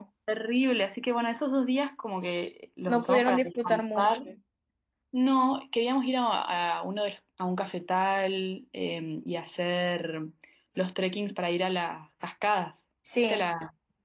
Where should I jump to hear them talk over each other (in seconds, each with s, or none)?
2.9 s